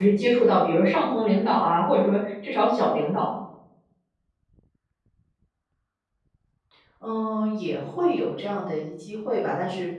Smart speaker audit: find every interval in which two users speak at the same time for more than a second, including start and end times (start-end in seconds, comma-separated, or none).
none